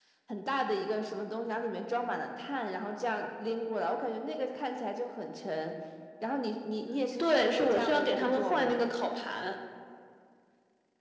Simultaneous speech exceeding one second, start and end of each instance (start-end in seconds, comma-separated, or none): 7.2-8.8